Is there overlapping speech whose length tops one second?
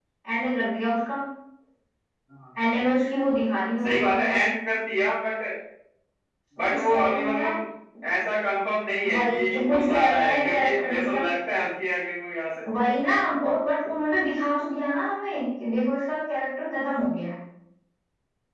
Yes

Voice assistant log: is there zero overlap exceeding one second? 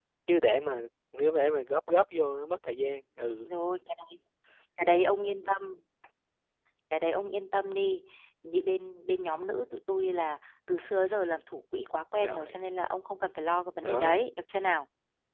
Yes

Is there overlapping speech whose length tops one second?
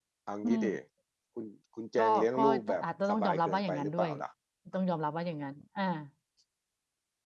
Yes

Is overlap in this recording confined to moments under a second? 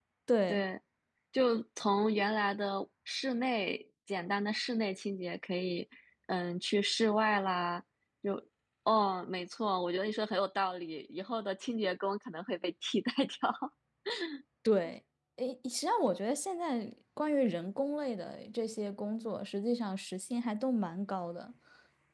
Yes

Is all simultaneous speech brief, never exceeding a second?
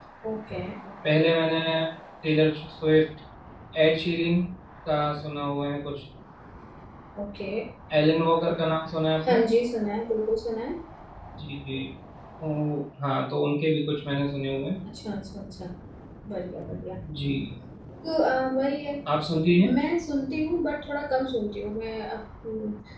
Yes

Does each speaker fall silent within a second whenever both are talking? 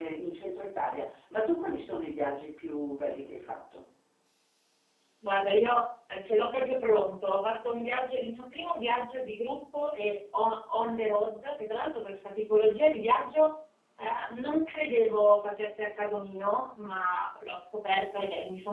Yes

